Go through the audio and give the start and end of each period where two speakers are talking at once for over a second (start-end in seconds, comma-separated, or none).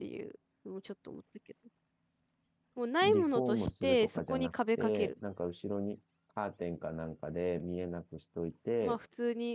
3.0-5.2